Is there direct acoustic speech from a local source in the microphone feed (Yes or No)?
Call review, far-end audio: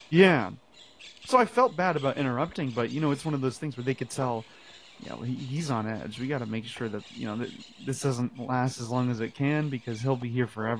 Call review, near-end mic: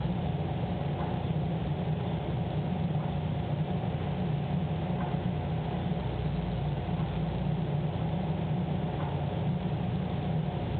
No